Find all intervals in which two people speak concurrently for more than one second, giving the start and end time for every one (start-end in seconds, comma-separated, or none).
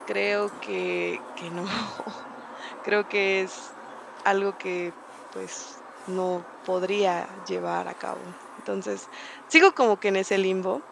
none